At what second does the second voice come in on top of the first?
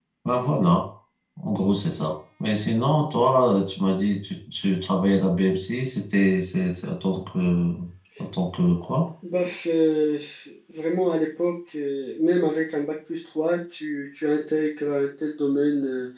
none

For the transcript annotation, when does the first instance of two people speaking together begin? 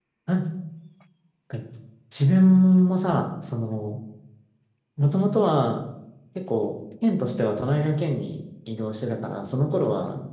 none

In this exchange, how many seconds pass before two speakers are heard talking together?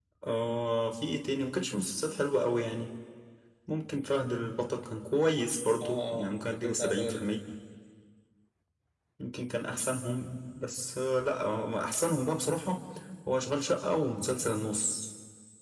5.8 s

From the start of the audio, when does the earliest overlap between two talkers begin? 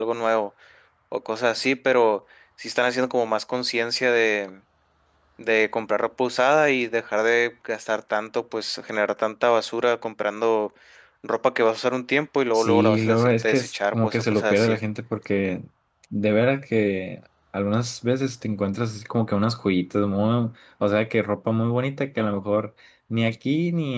12.5 s

